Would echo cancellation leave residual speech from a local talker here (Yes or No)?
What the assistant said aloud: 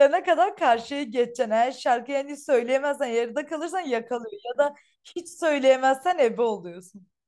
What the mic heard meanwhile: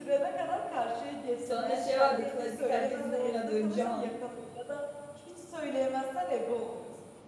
Yes